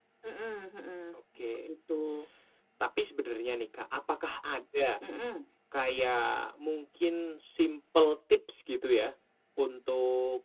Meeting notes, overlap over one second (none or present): none